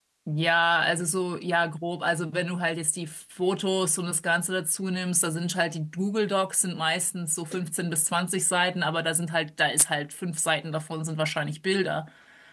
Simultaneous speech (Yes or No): No